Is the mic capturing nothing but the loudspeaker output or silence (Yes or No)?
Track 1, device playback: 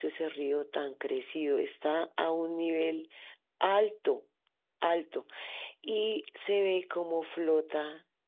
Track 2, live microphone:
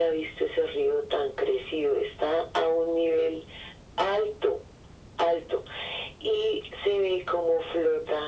Yes